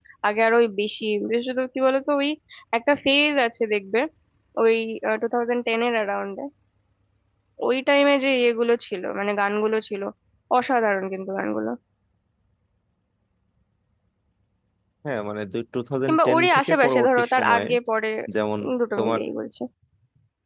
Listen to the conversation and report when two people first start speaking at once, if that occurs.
16.1 s

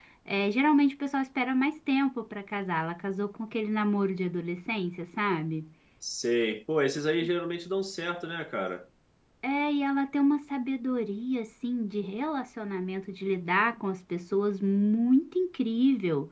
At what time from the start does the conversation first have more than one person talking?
none

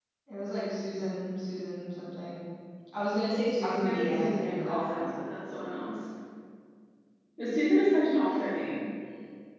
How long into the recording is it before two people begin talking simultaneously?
3.6 s

